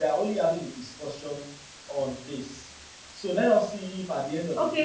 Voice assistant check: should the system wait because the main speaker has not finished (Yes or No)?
No